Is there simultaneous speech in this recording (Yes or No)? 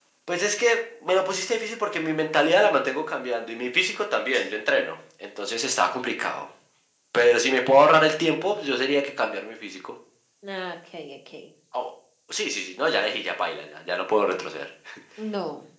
No